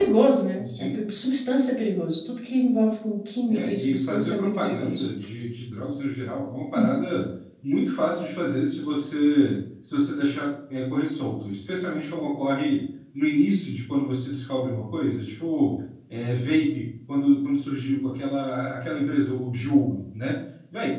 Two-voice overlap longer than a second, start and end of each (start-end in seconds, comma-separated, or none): 3.5-5.0